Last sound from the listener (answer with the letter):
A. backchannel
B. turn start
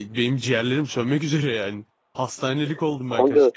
B